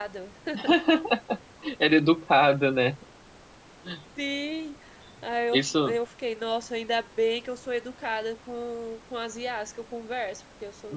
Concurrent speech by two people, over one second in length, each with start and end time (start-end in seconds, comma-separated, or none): none